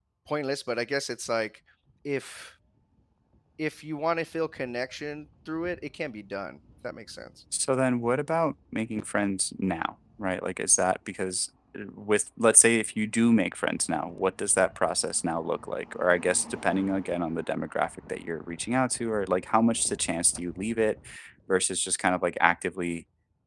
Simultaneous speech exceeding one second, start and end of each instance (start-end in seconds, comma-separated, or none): none